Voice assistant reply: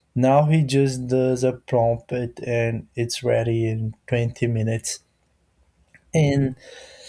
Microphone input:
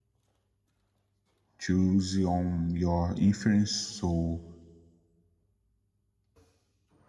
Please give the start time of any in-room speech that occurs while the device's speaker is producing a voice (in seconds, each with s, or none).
1.6 s